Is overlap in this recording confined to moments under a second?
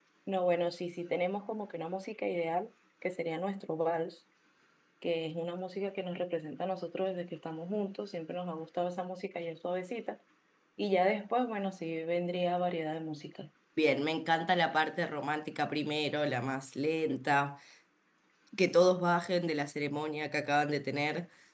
Yes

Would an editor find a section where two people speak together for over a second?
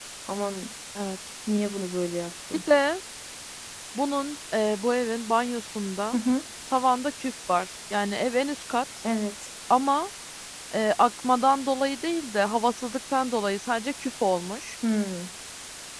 No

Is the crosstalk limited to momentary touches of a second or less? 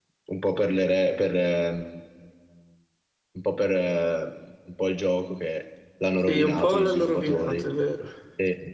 No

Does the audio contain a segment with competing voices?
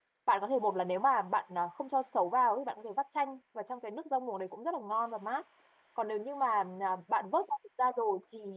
No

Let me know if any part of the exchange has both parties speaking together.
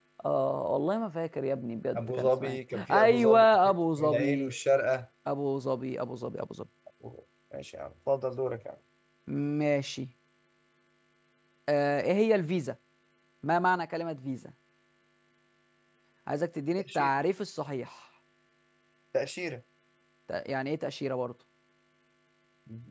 Yes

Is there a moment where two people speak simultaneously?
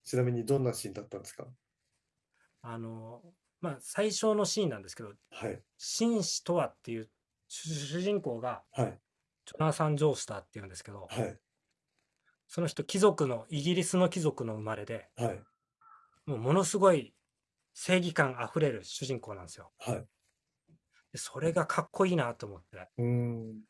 No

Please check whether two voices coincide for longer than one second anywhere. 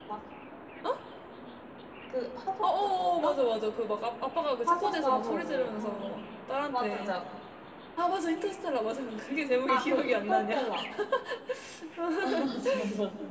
Yes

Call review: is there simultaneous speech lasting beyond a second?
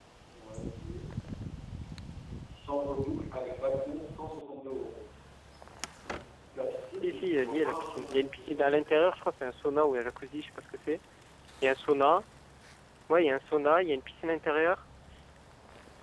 Yes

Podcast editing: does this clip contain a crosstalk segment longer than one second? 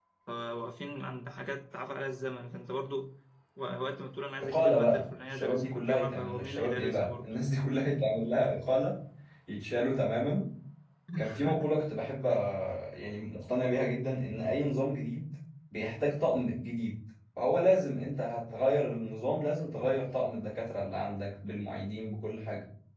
Yes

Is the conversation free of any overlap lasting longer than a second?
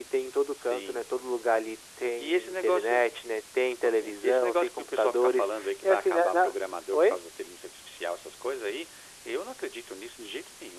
No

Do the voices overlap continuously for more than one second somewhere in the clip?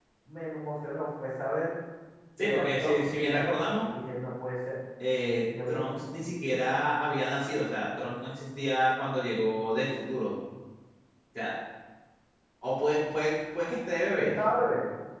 Yes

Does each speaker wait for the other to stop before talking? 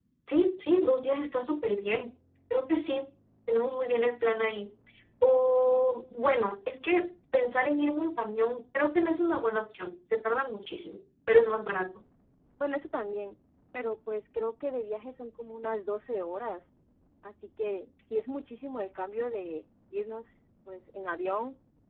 Yes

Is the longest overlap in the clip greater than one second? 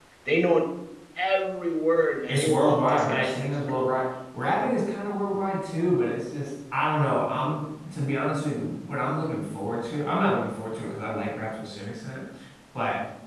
Yes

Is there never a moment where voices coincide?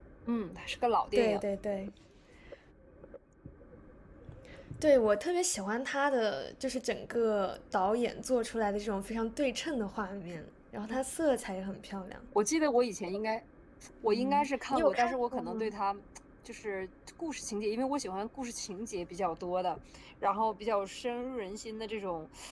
No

